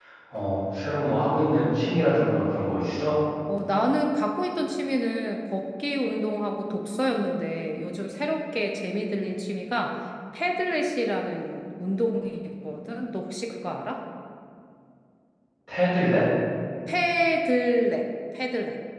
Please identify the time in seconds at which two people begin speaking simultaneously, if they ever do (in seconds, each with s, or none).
none